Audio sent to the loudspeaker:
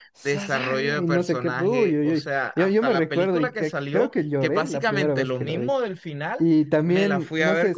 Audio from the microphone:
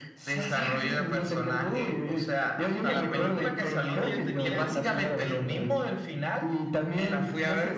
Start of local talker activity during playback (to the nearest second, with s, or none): 3 s